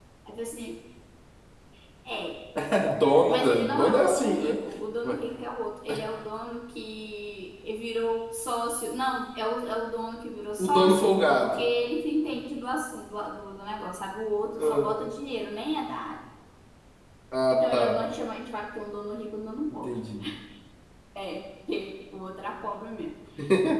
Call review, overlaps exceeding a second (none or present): present